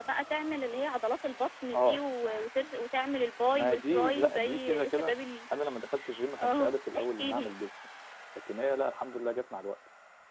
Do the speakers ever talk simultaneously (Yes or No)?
Yes